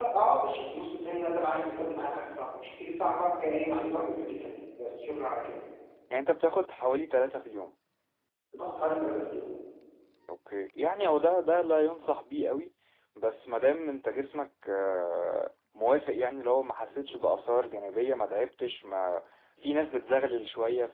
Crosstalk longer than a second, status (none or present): none